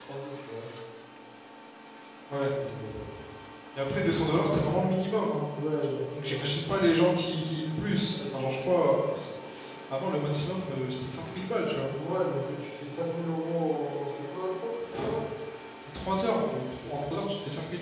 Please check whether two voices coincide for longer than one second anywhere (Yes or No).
No